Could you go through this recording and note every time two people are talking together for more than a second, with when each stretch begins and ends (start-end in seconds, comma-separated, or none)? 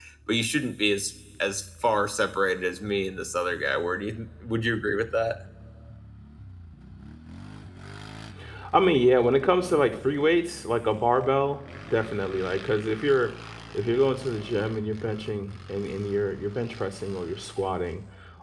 none